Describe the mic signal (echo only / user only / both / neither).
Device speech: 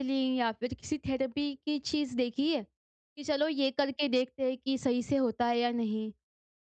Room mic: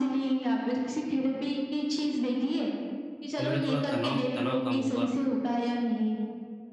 both